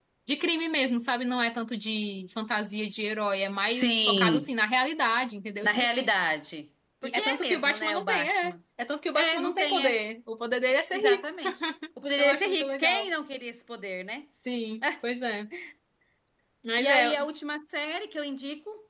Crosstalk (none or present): present